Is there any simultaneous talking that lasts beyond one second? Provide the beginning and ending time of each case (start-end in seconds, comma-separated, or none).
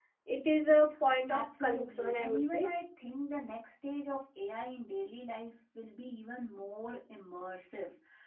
1.3-2.7